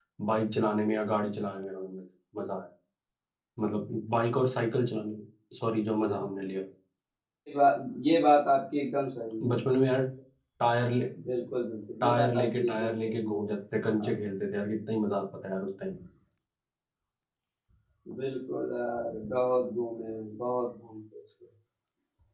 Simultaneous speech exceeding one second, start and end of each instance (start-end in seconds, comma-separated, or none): 12.0-13.5